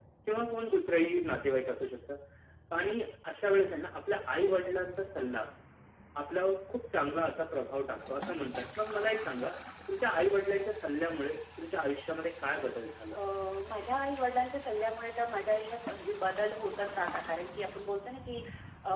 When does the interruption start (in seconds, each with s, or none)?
none